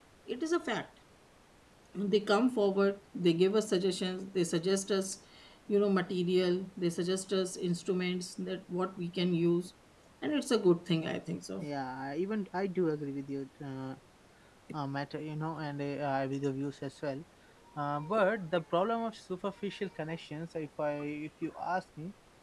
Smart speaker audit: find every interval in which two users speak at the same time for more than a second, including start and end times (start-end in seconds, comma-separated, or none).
none